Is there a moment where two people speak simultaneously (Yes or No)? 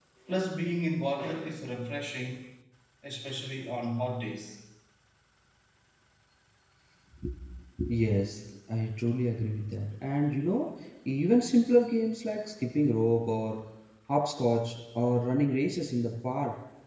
No